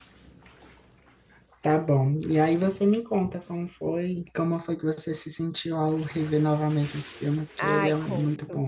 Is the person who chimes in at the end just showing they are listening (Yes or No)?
No